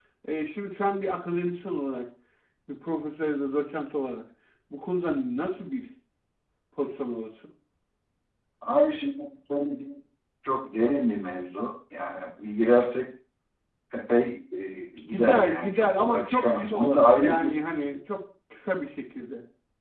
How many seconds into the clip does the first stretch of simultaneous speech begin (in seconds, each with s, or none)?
15.1 s